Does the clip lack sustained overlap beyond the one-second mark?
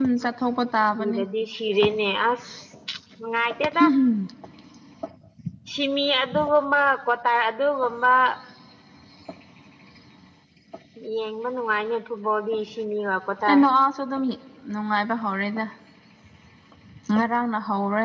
Yes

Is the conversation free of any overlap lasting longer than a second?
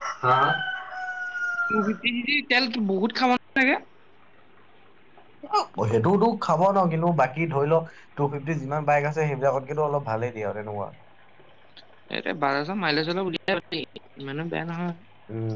Yes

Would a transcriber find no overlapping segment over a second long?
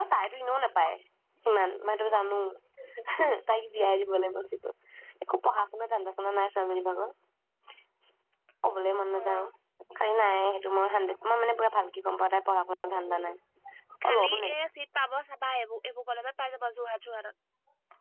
Yes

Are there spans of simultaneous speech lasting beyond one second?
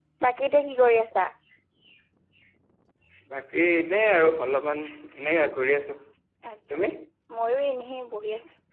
No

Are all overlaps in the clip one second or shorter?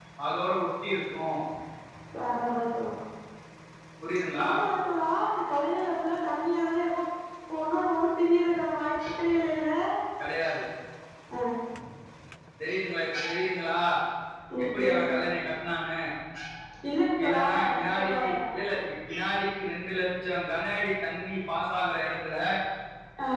No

